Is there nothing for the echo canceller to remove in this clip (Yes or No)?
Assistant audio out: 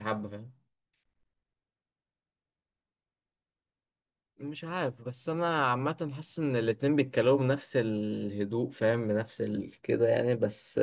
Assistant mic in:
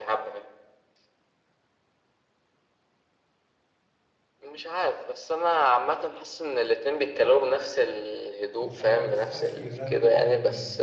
No